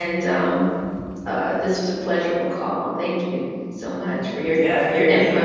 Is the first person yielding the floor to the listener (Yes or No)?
Yes